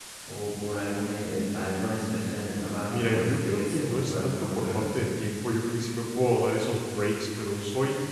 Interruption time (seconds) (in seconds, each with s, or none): 2.9 s